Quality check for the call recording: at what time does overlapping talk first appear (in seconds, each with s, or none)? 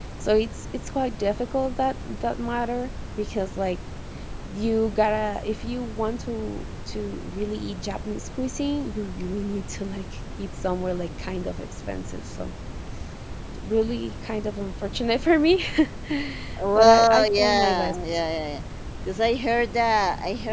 16.8 s